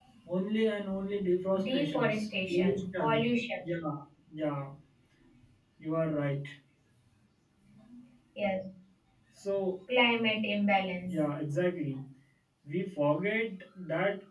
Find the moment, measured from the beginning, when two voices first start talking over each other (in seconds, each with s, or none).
1.5 s